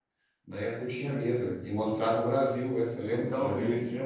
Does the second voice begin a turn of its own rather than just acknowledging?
Yes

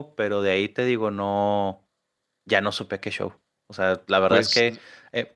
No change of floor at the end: Yes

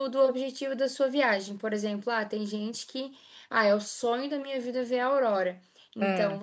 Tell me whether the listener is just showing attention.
Yes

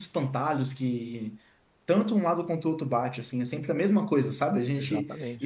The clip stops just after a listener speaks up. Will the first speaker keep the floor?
Yes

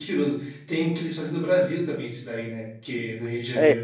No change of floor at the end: No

